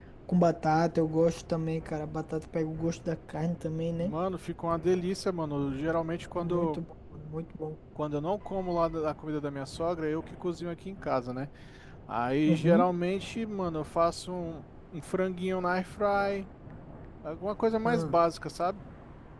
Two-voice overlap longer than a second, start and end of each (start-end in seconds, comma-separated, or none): none